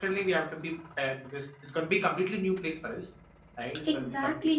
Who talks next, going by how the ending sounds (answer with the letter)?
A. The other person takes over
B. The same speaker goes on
A